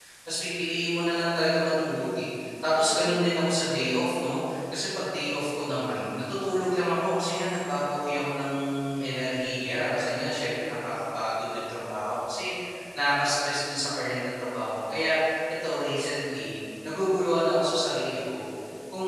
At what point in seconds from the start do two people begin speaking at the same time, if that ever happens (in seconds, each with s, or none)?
none